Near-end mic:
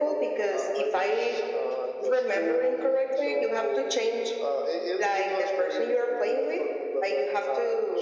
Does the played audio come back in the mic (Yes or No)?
Yes